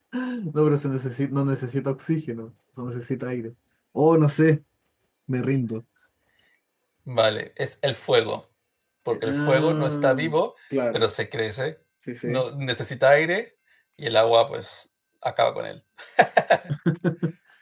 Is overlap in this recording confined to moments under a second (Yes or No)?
No